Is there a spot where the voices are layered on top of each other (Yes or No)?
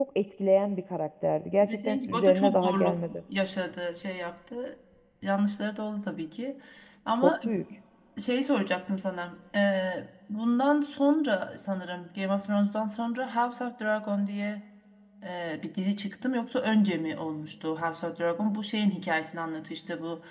Yes